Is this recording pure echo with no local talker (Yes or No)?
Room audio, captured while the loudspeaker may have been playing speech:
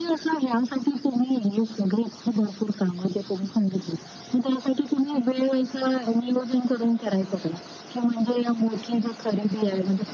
Yes